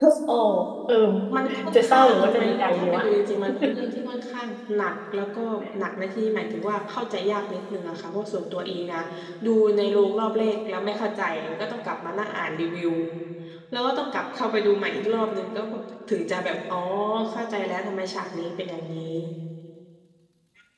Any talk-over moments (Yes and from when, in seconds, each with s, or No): Yes, from 1.7 s